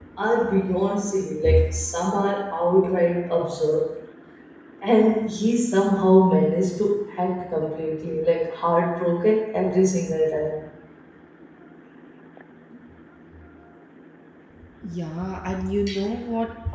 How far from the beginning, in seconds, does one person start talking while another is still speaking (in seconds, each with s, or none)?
none